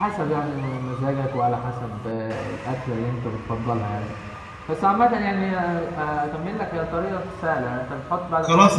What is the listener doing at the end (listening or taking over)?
taking over